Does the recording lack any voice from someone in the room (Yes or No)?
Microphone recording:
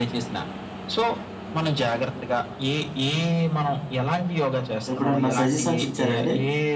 No